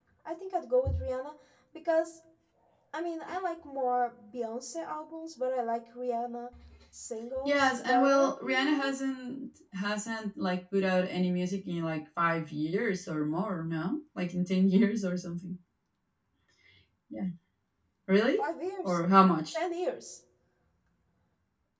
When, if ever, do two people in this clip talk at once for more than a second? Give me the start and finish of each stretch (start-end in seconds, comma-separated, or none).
7.4-8.9